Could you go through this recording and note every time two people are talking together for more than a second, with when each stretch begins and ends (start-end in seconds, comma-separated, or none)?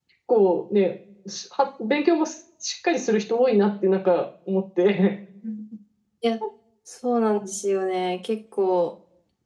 none